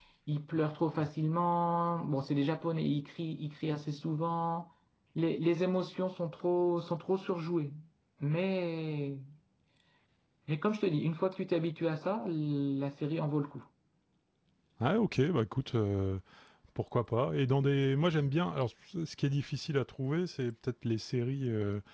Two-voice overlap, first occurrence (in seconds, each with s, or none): none